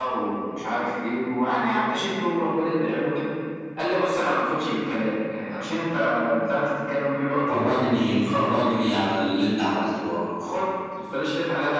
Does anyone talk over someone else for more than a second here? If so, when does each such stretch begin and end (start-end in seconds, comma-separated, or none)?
none